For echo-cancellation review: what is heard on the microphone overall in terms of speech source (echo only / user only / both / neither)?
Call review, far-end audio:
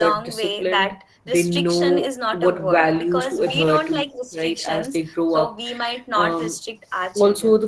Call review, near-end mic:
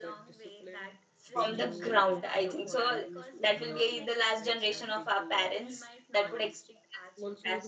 both